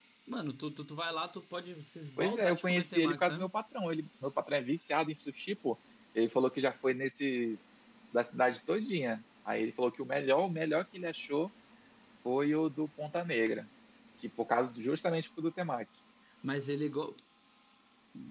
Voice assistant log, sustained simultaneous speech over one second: present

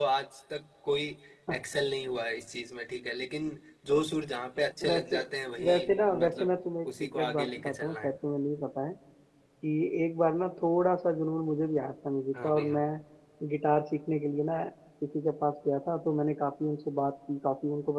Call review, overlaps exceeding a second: present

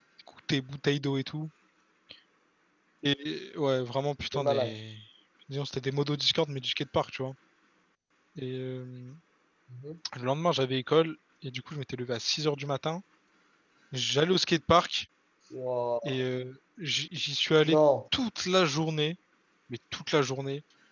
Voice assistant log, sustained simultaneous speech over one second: none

